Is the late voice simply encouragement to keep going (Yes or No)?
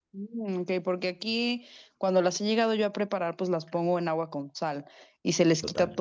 Yes